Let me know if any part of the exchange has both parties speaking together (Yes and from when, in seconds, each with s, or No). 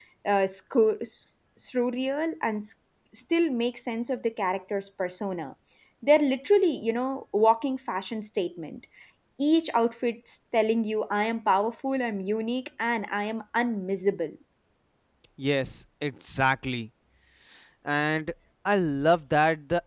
No